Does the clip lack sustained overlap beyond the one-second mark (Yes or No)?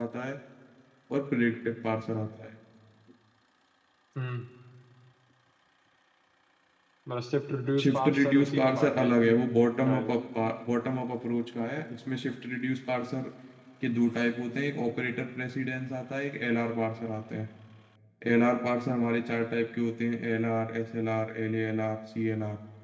No